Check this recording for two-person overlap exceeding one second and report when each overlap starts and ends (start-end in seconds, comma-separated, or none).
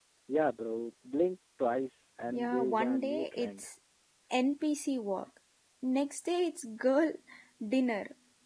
2.3-3.7